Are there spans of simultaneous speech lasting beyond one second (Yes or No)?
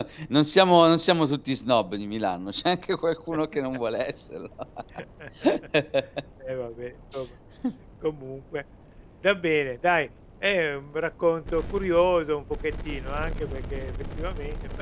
No